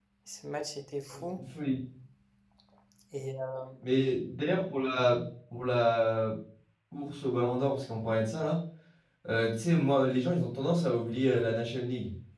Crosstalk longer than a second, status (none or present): none